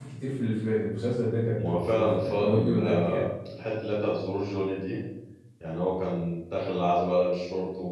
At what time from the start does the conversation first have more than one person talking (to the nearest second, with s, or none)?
2 s